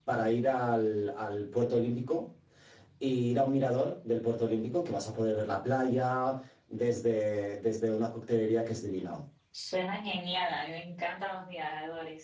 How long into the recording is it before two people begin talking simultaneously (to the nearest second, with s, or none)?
none